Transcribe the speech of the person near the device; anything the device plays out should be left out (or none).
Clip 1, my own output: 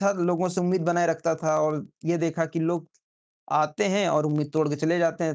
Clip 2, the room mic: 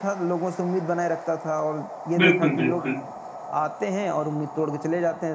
बिल्कुल, बिल्कुल।